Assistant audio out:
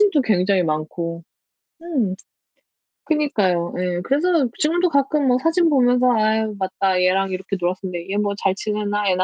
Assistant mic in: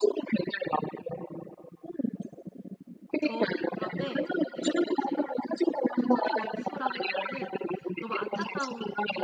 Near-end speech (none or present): present